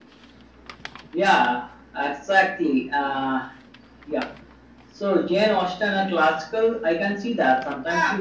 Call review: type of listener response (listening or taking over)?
listening